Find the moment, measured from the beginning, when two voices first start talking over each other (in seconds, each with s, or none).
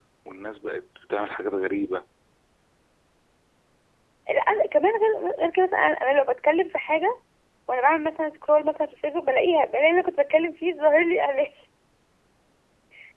none